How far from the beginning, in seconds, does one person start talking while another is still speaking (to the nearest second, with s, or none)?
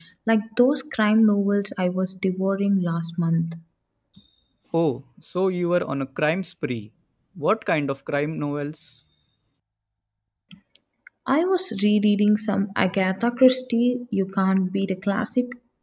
none